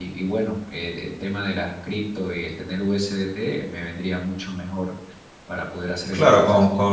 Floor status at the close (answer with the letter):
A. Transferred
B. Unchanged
A